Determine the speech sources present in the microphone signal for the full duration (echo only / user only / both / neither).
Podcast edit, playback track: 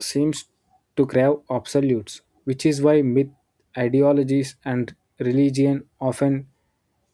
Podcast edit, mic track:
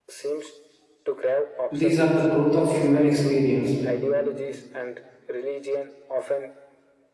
both